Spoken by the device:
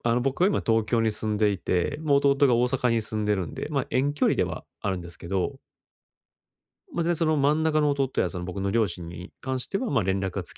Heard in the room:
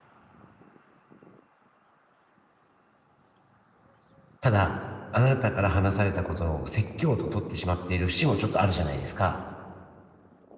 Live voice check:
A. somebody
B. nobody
A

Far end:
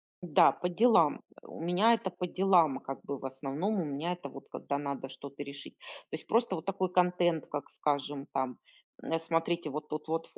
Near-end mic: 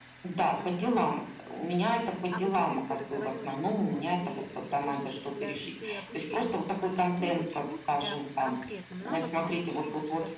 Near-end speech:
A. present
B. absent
A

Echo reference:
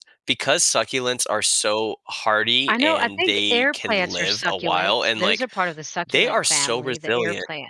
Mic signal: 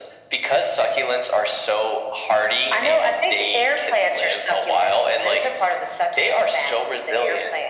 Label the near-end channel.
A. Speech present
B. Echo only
B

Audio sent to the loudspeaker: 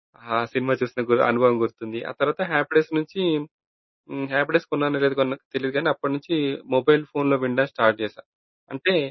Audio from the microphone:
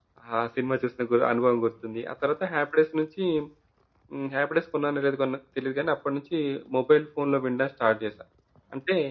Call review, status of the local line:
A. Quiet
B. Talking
A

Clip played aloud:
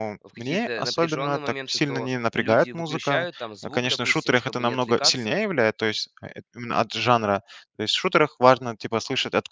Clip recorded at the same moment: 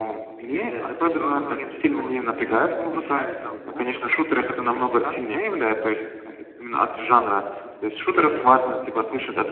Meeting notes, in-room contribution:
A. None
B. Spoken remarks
B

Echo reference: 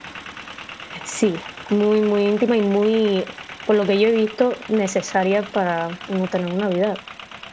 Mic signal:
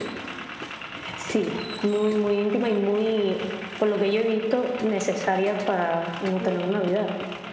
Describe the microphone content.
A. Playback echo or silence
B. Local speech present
B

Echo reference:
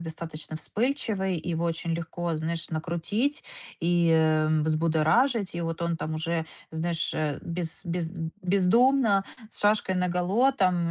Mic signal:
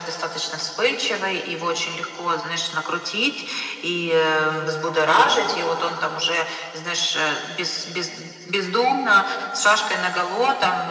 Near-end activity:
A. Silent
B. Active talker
A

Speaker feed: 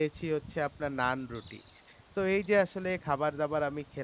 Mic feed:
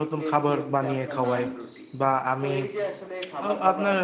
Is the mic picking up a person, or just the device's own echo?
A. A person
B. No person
A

